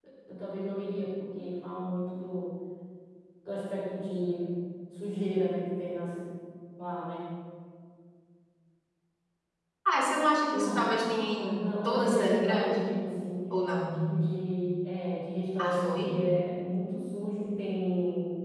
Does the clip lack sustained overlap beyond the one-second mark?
No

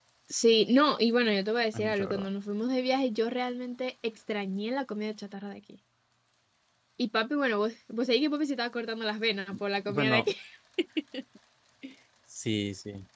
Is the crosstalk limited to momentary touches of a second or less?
Yes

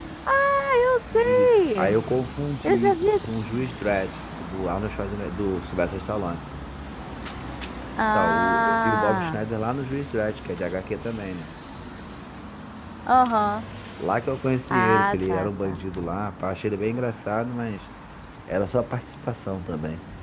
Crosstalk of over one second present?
Yes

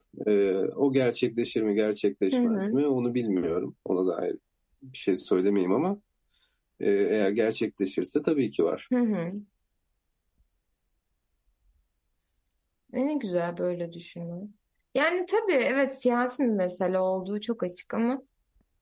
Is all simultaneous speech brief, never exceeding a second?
Yes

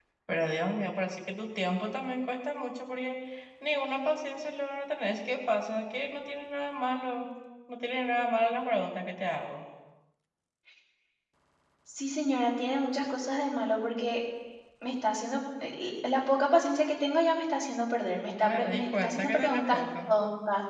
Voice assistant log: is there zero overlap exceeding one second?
No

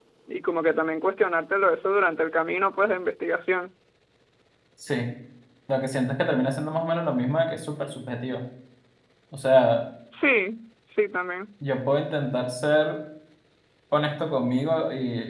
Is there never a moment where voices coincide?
Yes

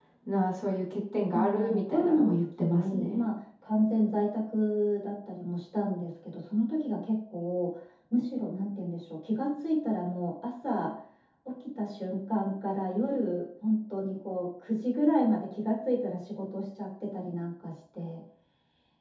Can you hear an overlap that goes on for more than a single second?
Yes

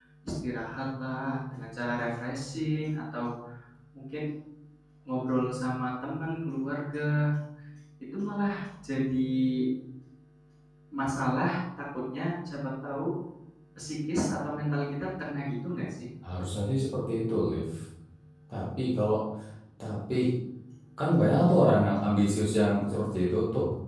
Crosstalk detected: No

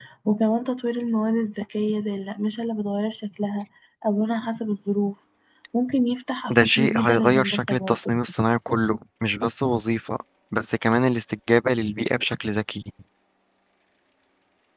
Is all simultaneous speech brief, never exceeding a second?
No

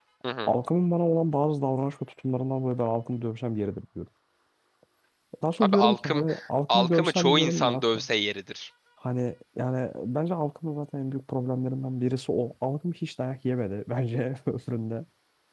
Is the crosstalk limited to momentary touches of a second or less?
No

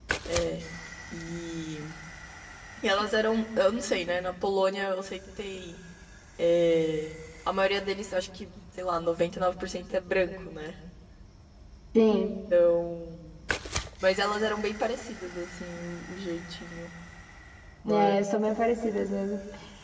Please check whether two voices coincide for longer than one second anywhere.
No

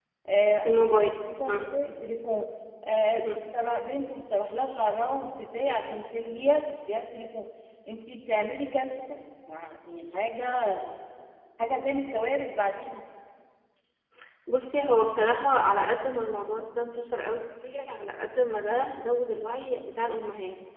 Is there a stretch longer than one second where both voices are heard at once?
No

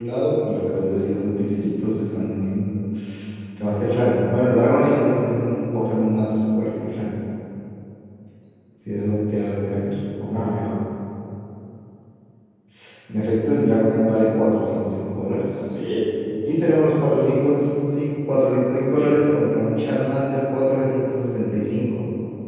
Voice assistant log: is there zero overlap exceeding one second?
Yes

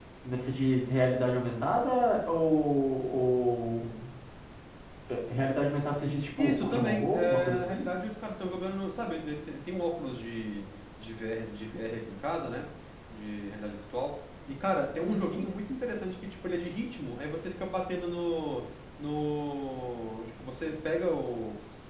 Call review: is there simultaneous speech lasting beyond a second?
Yes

